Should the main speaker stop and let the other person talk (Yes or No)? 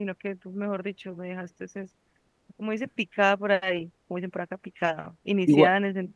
No